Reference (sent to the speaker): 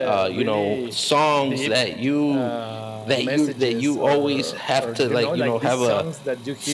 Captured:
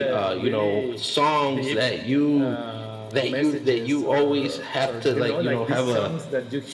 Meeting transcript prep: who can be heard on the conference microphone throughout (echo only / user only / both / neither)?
echo only